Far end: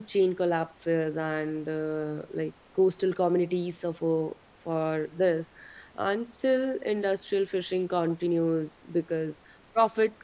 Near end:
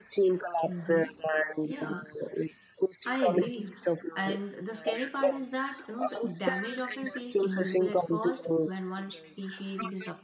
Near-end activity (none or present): present